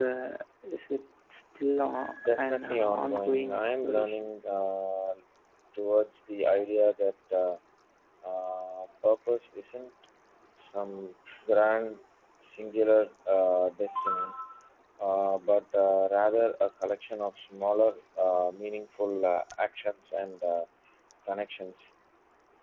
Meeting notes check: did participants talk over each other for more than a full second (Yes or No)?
Yes